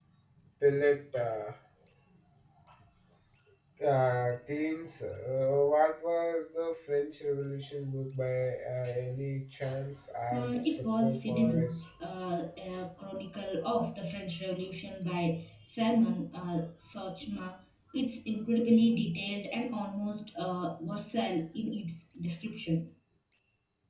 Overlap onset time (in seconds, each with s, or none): 10.3 s